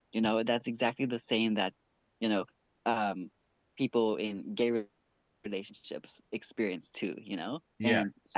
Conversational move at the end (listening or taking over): listening